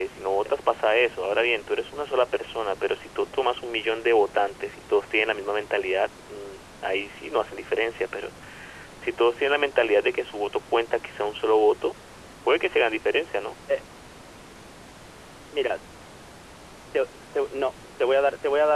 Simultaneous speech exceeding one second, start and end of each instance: none

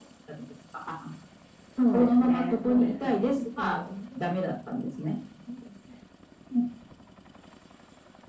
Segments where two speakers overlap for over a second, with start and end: 1.9-3.8

